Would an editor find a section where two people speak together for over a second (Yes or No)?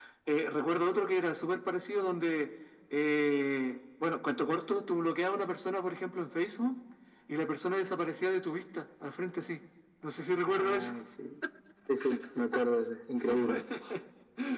No